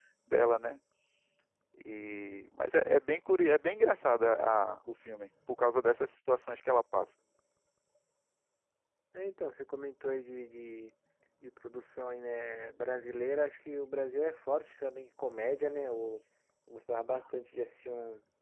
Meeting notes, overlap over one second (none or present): none